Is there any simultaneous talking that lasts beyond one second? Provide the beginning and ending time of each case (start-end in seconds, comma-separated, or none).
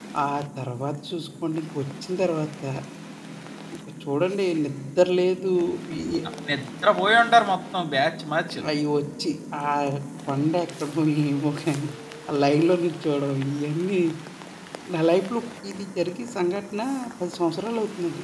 none